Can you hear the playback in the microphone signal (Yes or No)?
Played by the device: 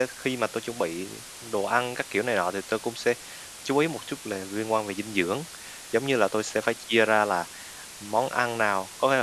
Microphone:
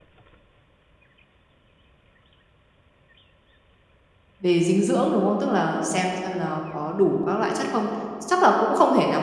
No